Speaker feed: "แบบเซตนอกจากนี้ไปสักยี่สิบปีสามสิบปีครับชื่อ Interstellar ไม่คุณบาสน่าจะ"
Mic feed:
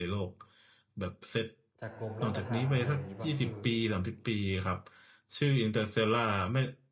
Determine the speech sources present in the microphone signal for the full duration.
both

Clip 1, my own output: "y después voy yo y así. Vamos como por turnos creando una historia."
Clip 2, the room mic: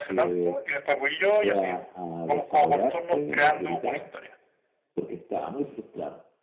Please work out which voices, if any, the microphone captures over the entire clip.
both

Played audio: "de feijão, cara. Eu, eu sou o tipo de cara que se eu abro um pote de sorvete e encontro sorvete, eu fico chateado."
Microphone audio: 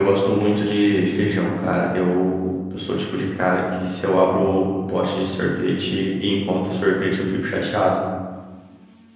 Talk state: echo only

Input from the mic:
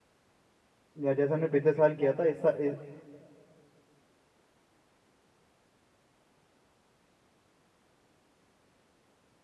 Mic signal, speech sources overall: user only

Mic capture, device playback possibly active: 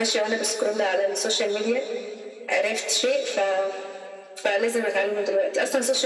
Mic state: echo only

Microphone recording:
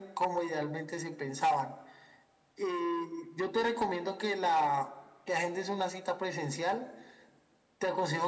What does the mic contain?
echo only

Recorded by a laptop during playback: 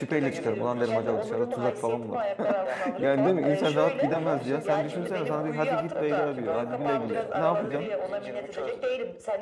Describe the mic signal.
both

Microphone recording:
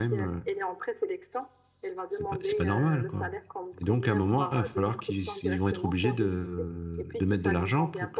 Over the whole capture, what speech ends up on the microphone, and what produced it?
both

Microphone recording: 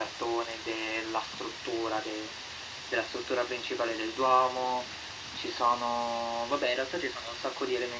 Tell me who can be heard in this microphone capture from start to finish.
echo only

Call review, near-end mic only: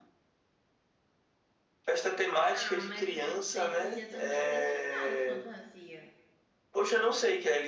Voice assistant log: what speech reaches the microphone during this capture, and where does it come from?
both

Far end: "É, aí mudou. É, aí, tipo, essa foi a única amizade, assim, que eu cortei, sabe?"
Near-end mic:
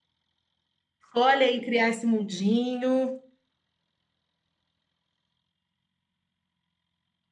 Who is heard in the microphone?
user only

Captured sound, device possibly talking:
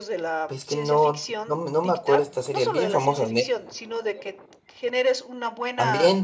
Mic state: both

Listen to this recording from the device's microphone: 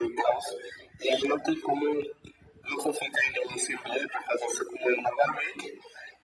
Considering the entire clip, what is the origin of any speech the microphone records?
echo only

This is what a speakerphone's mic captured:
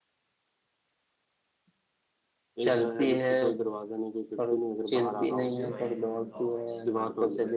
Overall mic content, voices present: both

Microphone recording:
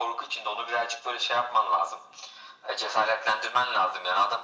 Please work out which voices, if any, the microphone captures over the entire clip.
echo only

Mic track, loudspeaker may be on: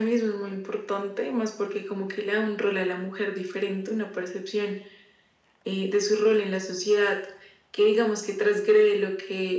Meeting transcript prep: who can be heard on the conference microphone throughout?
echo only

